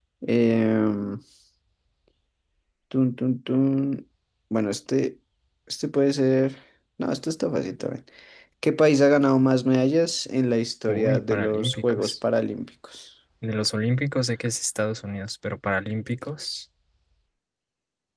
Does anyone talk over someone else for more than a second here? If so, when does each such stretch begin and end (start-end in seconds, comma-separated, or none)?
10.9-12.1